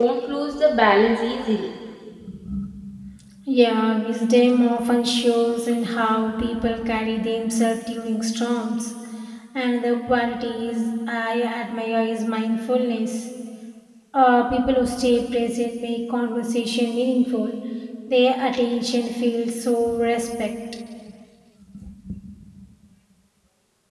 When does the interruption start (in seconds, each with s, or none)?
none